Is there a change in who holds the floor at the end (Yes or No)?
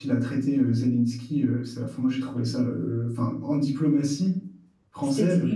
No